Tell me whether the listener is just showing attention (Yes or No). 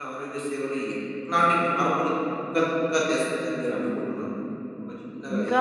No